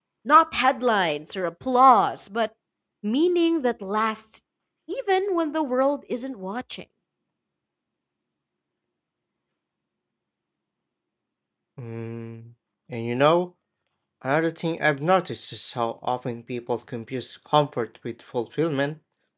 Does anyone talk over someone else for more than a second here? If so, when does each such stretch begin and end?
none

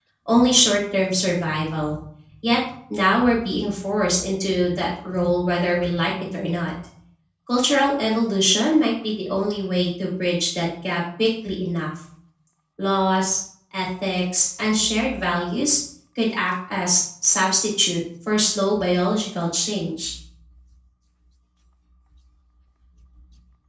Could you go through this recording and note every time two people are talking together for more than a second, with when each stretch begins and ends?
none

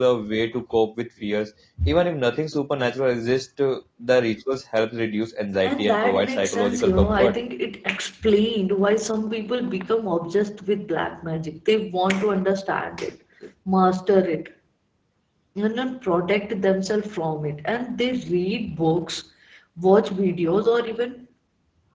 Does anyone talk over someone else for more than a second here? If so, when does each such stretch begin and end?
5.6-7.3

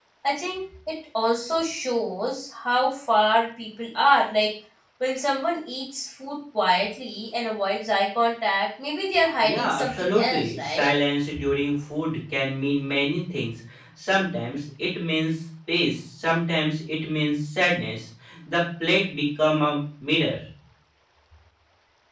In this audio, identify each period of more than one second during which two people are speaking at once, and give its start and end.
9.4-10.9

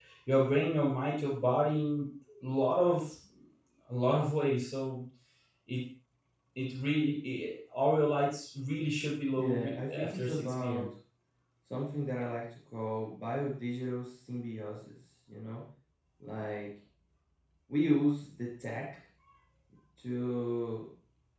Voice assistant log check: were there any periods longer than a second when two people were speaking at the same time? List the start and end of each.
9.4-10.9

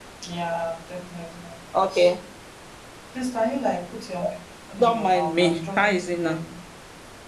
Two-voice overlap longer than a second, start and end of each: 4.8-6.4

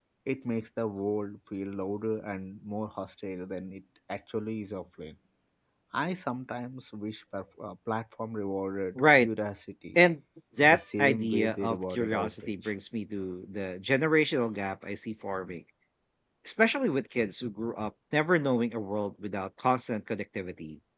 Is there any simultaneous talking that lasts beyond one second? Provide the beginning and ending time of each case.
10.7-12.7

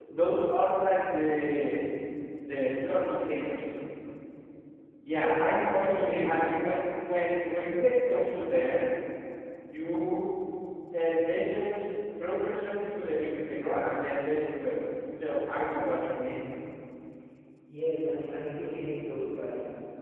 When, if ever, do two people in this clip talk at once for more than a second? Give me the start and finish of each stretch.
5.1-6.4

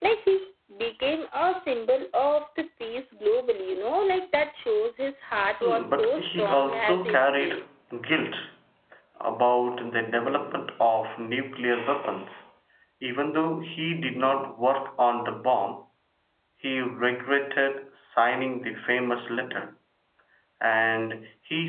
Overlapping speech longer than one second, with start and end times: 5.6-7.6

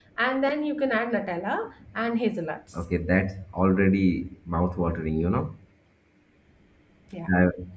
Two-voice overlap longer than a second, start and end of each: none

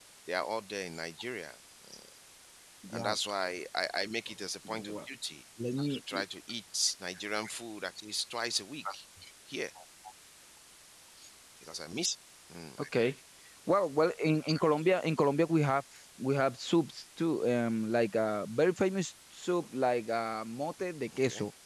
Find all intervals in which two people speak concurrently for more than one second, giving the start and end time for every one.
none

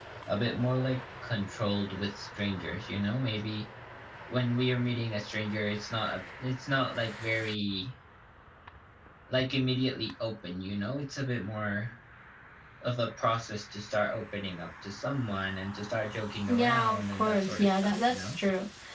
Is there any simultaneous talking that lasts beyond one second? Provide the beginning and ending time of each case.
16.5-18.4

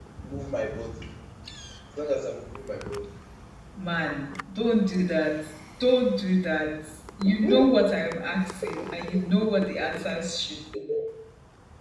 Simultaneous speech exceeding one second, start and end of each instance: none

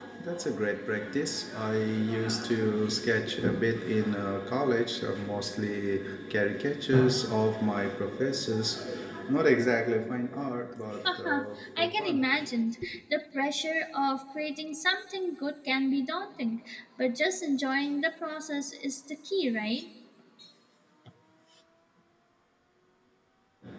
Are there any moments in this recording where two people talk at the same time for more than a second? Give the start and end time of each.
11.1-12.2

